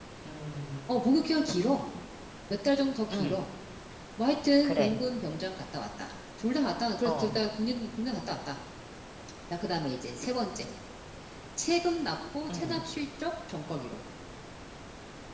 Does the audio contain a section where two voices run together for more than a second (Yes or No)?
No